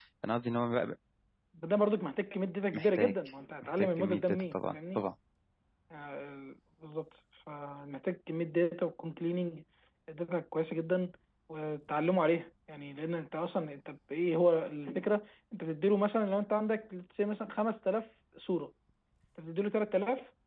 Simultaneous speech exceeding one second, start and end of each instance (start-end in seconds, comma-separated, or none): 3.8-5.0